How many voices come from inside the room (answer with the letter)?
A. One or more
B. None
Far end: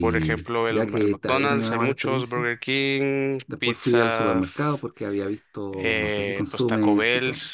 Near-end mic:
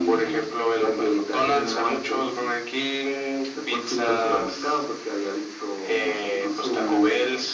B